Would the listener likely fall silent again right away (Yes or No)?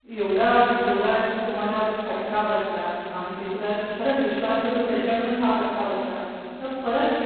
Yes